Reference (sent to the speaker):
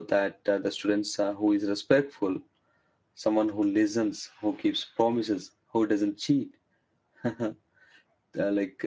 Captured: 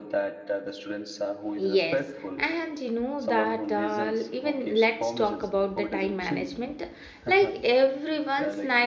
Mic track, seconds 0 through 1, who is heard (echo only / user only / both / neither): echo only